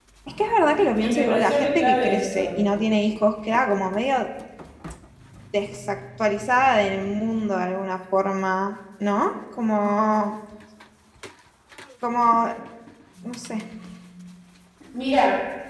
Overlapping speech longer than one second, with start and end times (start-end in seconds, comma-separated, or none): 1.0-2.6